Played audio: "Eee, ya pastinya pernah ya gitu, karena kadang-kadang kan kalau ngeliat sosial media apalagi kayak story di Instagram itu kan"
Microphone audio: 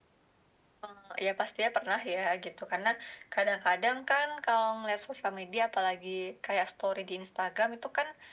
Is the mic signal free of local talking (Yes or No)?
Yes